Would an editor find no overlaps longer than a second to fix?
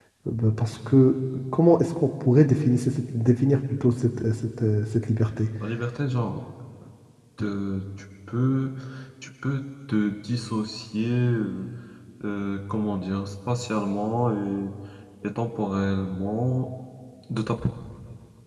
Yes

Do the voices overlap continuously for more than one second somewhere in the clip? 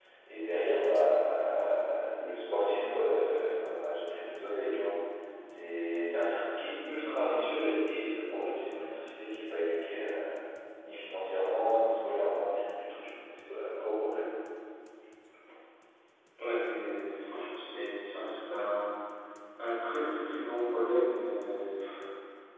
No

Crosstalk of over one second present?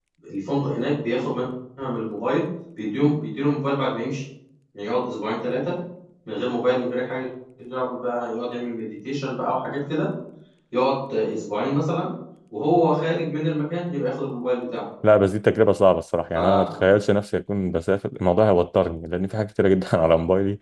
No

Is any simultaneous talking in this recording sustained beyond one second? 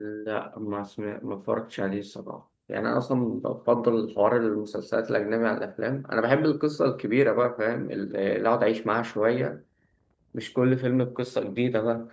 No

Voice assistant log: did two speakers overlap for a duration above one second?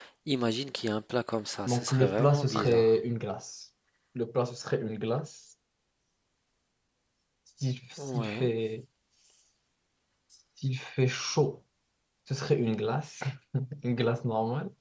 Yes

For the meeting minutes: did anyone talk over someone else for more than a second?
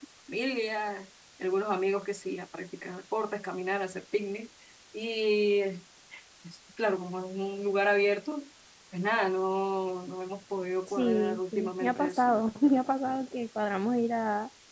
Yes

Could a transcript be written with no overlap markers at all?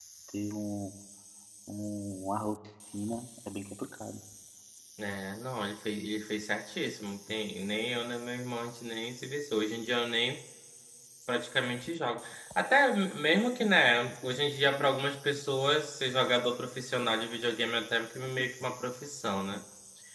Yes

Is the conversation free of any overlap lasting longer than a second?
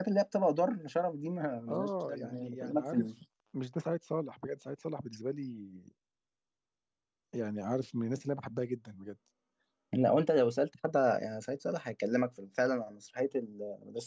No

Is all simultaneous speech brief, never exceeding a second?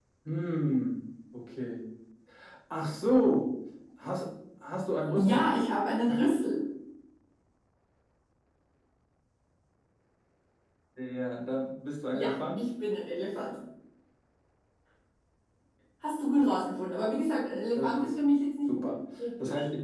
Yes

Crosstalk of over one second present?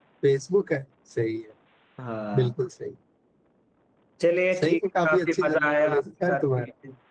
Yes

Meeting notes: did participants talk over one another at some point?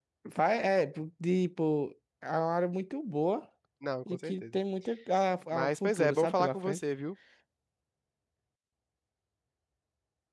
Yes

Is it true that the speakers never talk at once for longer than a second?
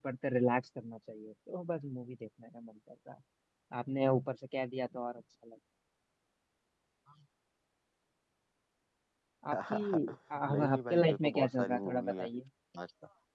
No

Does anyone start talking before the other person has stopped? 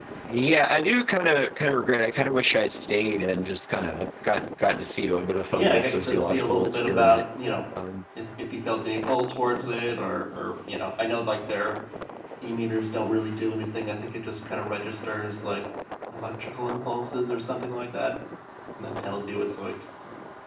Yes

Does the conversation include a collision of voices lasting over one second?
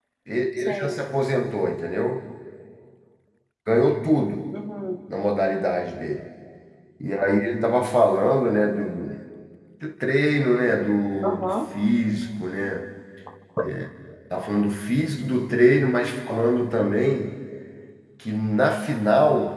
No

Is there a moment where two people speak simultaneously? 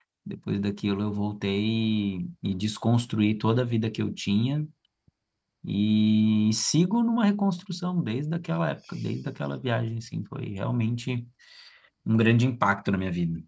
No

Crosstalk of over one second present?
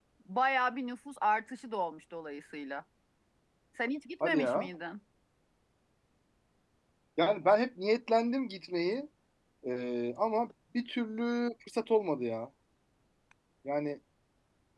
No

